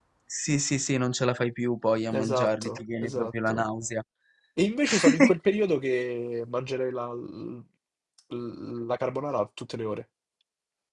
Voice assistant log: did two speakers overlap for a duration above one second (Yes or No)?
Yes